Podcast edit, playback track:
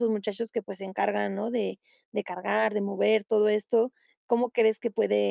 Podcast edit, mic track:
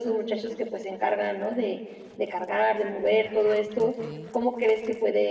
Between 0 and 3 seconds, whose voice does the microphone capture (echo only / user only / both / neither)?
echo only